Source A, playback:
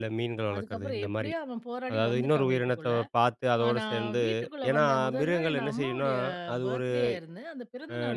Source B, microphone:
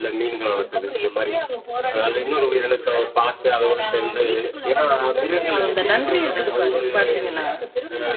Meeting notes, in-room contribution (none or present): present